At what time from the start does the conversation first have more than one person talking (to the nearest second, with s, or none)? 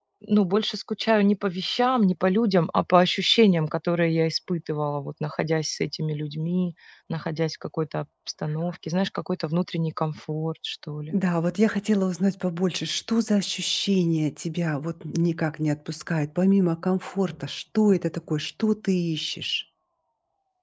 none